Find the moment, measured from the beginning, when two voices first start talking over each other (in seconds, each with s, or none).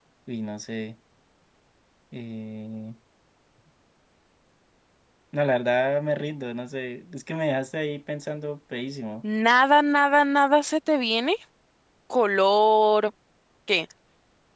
none